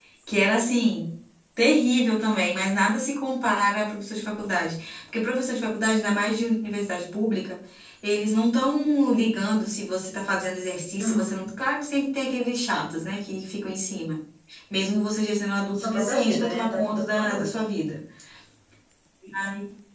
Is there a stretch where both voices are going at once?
Yes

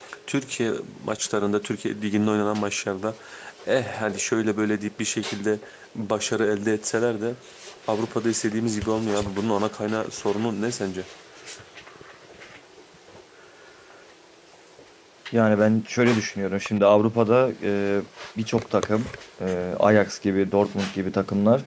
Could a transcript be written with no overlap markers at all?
Yes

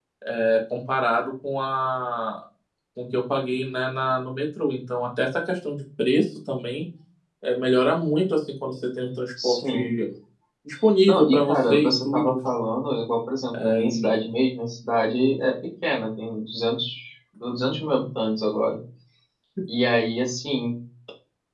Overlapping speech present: Yes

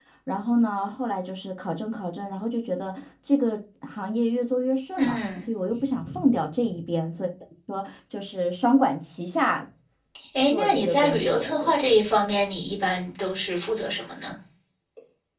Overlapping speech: Yes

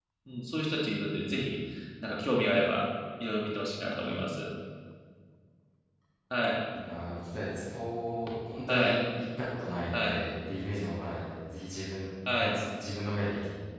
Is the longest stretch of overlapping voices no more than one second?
Yes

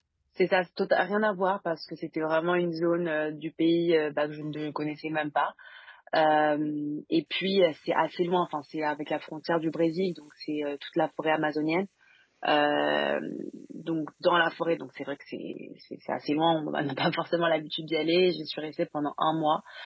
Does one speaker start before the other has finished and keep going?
No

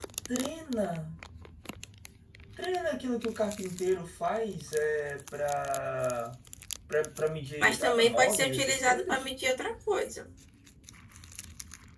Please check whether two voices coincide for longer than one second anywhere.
Yes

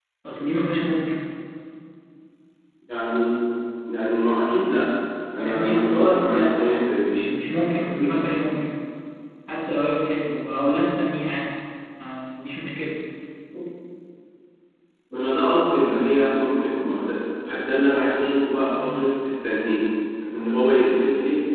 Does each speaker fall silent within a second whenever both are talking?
No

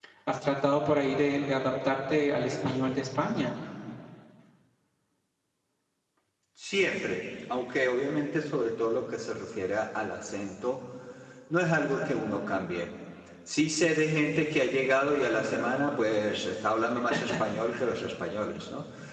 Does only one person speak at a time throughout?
Yes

